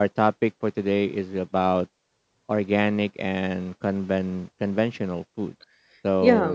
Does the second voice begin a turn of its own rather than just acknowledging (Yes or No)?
Yes